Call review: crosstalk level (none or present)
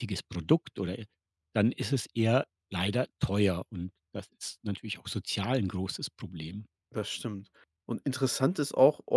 none